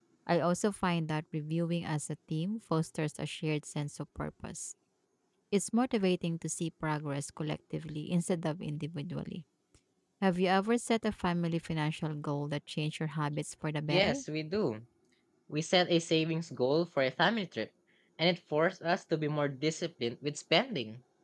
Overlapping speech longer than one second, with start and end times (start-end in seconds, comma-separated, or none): none